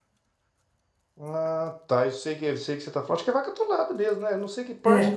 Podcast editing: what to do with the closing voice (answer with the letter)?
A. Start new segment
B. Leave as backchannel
A